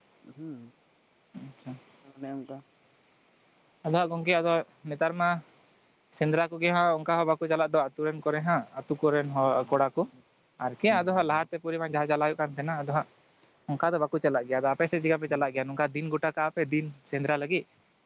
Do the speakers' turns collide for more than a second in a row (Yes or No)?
No